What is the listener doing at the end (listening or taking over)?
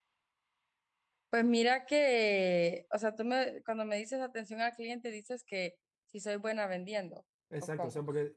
taking over